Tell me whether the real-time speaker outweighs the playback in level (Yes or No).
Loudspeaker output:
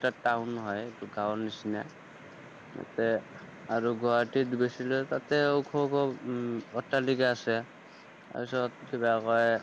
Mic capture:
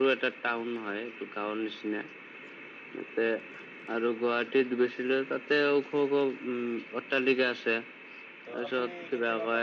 No